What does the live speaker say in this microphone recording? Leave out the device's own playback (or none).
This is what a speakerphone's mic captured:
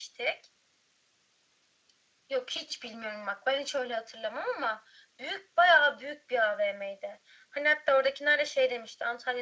none